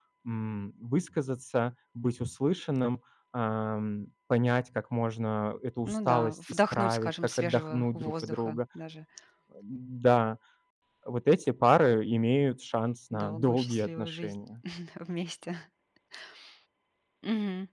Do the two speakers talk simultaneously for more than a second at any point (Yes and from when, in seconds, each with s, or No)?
Yes, from 5.8 s